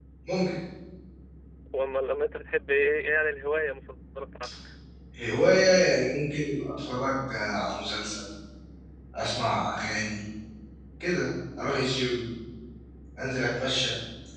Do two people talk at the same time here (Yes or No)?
No